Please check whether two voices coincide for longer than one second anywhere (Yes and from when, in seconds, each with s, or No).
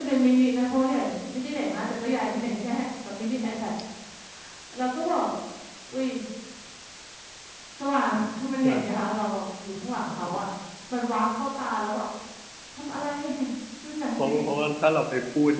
No